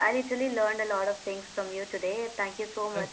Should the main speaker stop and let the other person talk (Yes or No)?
Yes